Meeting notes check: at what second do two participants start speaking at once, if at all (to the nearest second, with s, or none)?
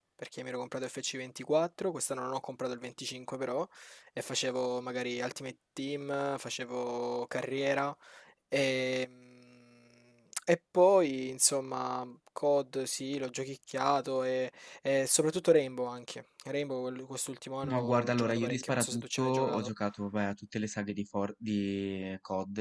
18 s